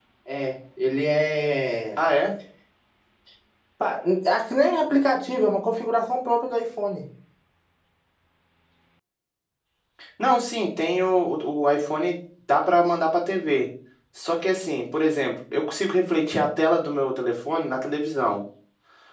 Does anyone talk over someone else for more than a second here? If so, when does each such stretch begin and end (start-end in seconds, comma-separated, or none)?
none